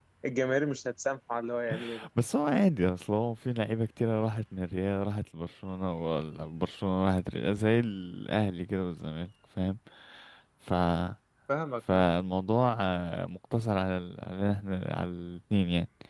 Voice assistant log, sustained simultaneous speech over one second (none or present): none